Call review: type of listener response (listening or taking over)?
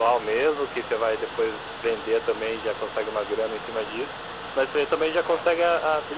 listening